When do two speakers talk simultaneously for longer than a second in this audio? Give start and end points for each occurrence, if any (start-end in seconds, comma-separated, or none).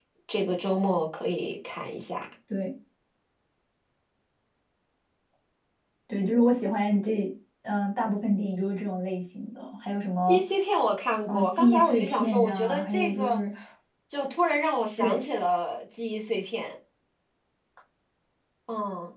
11.3-13.4